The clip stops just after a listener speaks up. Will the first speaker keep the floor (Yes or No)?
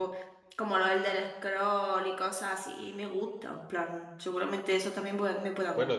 No